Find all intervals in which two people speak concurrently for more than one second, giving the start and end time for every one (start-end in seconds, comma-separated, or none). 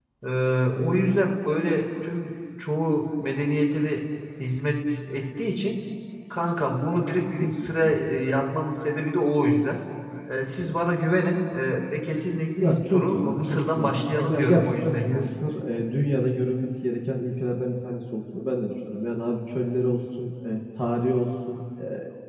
12.6-15.3